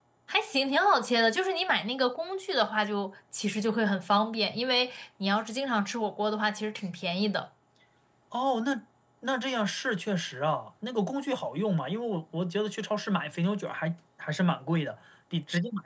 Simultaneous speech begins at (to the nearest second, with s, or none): none